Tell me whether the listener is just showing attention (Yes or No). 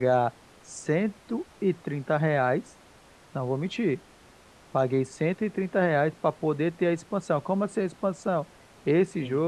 Yes